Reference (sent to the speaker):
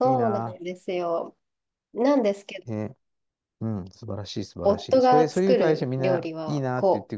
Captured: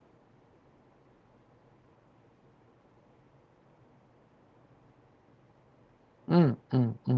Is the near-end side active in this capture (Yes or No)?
Yes